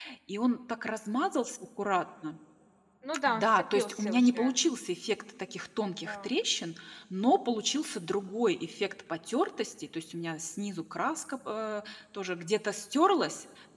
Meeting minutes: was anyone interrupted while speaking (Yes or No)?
Yes